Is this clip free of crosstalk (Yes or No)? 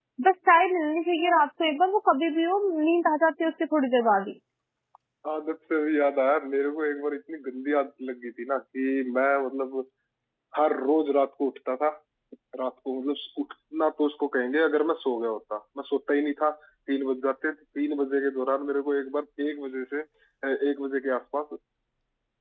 Yes